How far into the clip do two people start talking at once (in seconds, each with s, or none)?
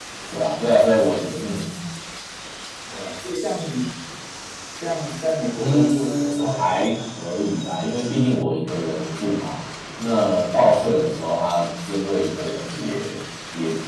5.5 s